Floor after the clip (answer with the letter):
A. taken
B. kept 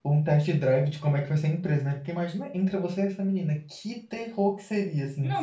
A